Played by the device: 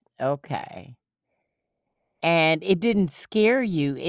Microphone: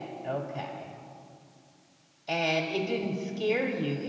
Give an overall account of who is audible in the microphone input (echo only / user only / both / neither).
echo only